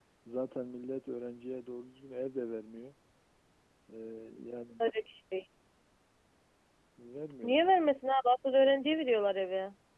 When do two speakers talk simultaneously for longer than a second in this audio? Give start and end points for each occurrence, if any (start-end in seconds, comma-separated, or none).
none